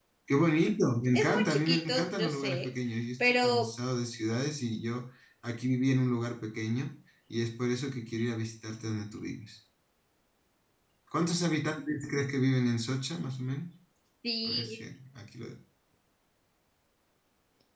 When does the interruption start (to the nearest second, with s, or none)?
1 s